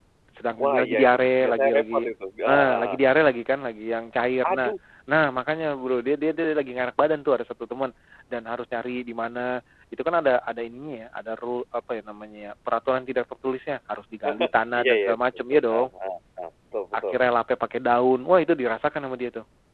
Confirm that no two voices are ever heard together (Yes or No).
No